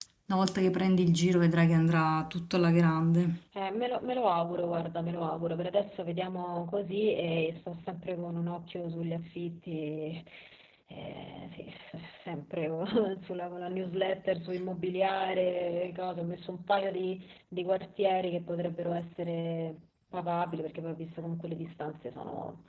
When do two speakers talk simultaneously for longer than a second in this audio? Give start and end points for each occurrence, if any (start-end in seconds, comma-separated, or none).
none